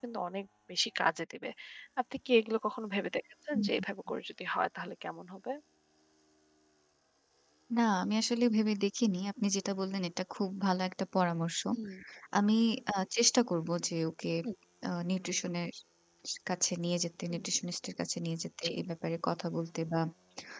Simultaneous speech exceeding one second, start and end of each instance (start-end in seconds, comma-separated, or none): none